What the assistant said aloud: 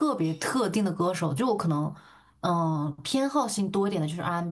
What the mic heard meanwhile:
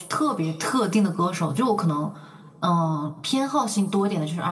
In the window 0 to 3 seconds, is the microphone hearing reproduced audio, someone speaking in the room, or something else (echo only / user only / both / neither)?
echo only